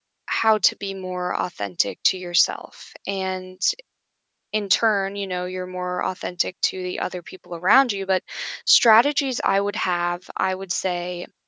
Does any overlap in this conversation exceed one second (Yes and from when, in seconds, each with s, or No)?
No